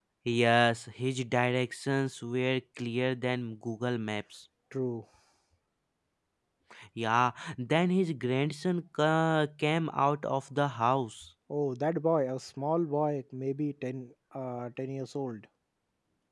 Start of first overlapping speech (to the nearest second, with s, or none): none